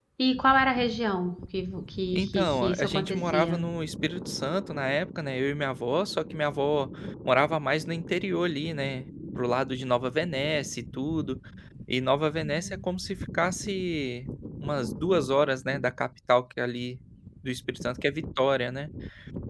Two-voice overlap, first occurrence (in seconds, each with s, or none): 2.1 s